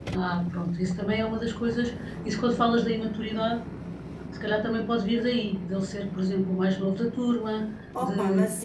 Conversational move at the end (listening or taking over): taking over